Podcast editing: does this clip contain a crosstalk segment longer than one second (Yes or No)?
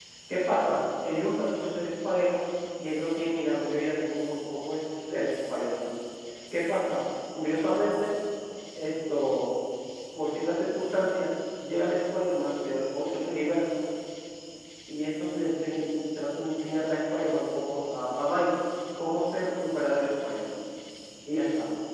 No